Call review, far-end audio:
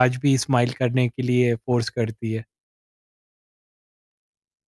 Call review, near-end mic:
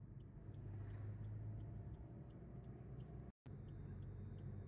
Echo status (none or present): none